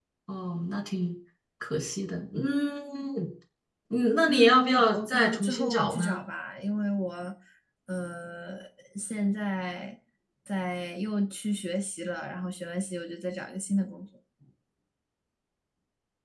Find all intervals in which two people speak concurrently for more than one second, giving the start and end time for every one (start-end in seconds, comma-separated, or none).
4.3-6.2